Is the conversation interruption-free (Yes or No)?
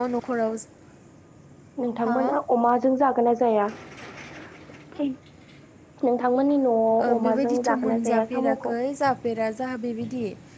No